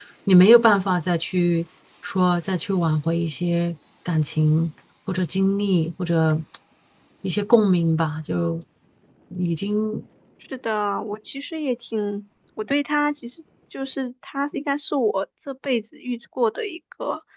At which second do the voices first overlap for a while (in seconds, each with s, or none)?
none